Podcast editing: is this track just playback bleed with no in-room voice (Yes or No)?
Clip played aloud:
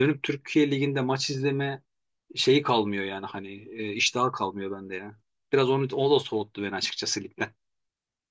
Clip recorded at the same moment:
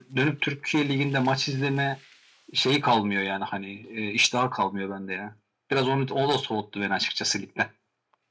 Yes